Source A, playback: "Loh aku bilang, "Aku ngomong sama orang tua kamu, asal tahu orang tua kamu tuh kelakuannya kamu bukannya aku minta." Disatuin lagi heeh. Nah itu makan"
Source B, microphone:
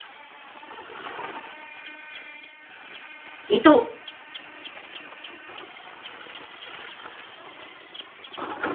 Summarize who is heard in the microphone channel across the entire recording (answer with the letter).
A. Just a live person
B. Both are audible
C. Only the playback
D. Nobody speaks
A